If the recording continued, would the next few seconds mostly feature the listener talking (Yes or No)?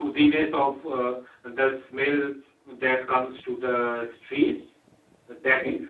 No